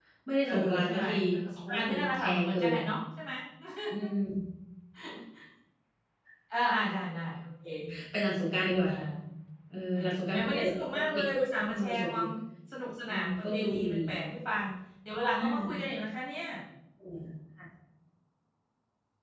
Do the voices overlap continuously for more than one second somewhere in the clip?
Yes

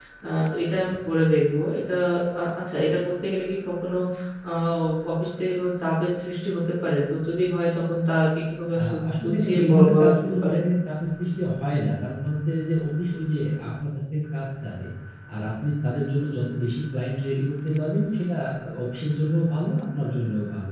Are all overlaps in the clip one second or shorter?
No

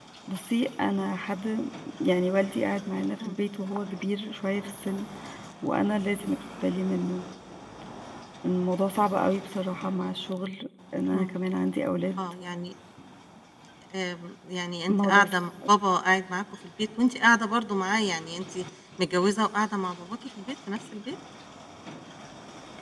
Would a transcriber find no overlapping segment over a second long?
Yes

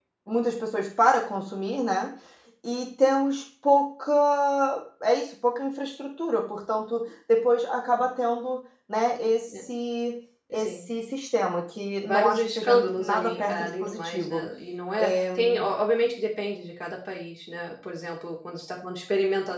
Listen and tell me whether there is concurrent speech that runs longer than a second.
Yes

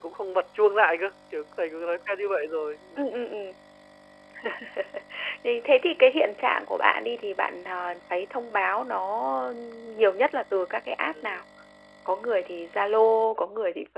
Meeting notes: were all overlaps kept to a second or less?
Yes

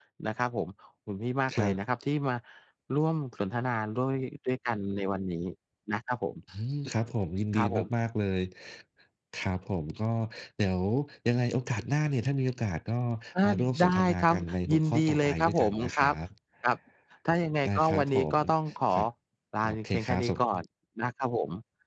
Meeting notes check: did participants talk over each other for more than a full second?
Yes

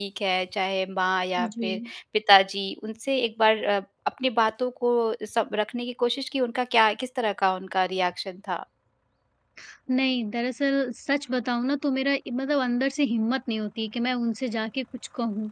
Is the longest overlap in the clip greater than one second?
No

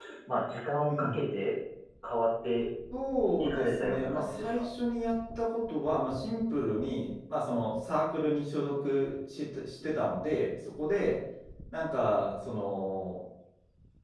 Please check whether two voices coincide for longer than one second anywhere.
Yes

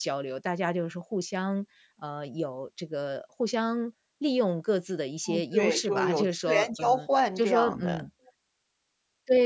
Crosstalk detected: Yes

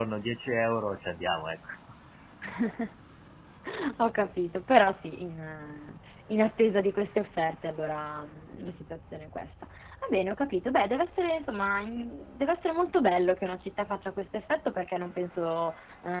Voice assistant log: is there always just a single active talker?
Yes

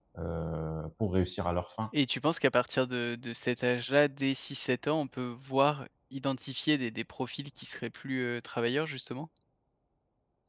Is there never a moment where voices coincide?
Yes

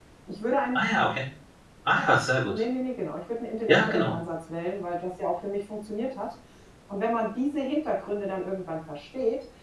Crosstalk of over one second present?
No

